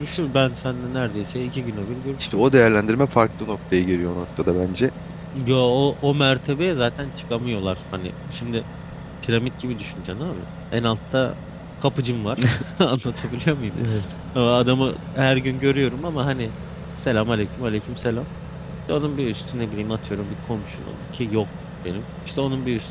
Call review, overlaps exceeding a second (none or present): none